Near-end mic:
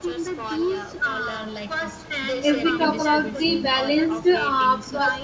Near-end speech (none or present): present